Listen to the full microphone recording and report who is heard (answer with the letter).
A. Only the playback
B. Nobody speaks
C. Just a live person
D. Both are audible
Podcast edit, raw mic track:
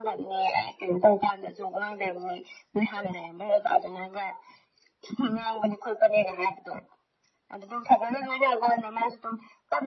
A